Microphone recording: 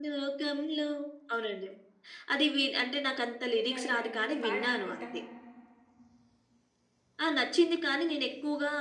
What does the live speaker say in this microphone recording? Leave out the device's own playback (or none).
విన్నా, విన్నా, విన్నా. నువ్వు పాడు వింటా.